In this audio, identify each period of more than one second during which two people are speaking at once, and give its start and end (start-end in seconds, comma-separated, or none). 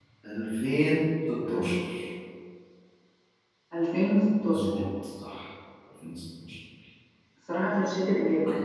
none